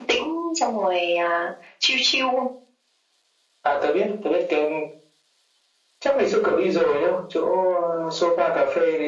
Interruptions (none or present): none